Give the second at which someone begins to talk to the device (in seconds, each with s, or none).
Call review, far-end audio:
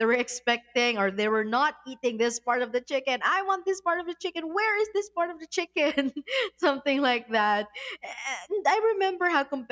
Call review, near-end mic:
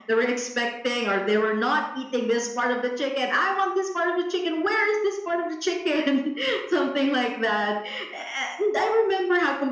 none